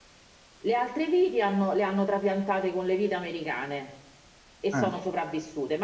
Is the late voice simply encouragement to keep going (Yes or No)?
Yes